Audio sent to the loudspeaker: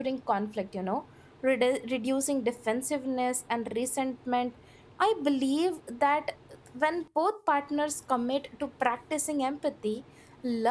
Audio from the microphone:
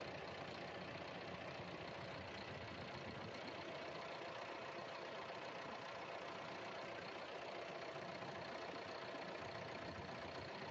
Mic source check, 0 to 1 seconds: neither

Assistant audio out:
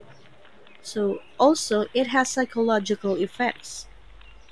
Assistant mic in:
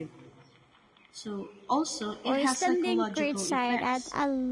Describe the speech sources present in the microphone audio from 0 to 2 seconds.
echo only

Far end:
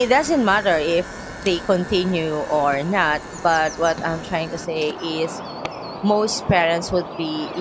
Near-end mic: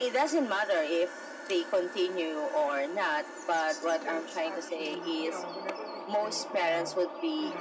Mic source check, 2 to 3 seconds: echo only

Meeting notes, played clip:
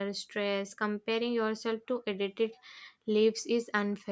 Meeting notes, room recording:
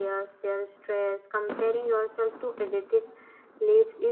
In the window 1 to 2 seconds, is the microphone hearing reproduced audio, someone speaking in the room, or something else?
echo only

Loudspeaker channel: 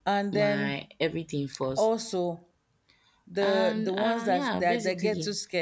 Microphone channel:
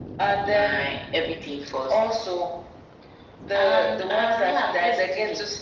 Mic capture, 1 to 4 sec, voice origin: echo only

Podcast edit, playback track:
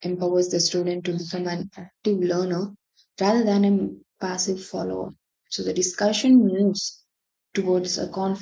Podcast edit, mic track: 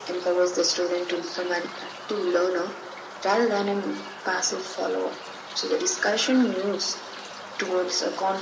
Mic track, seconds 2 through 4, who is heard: echo only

